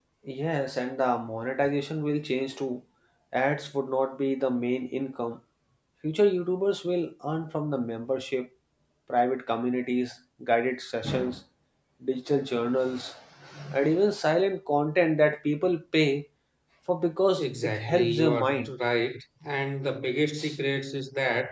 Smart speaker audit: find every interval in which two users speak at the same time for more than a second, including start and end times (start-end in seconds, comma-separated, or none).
17.4-18.7